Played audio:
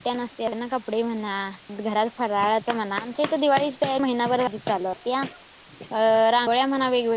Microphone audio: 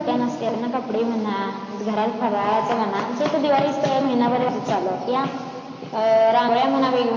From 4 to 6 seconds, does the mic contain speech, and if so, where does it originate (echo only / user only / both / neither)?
echo only